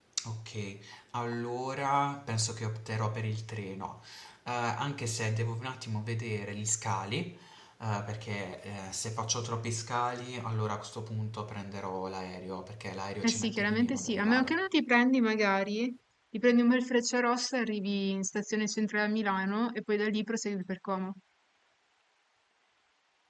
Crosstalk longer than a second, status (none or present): present